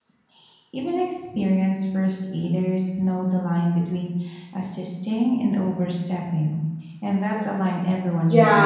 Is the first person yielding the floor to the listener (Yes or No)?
Yes